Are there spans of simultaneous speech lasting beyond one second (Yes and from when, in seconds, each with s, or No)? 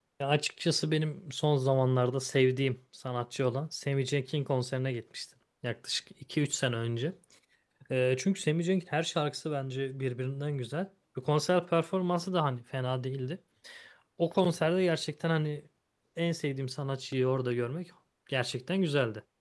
No